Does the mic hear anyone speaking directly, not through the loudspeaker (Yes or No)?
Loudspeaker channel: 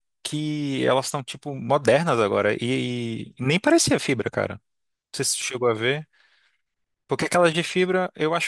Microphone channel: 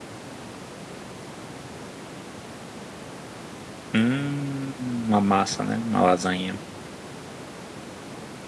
Yes